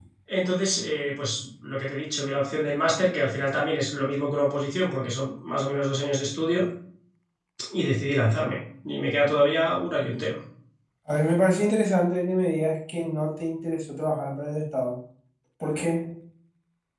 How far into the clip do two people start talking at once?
none

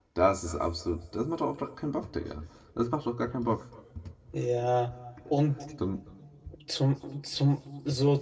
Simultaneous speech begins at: none

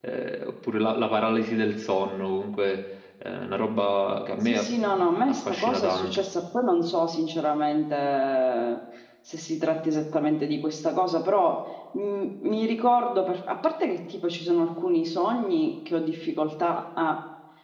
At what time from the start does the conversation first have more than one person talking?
4.4 s

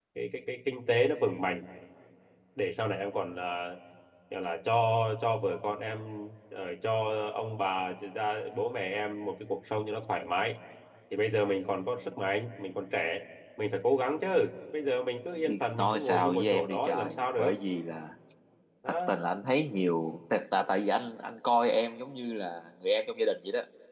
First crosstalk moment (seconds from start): 15.4 s

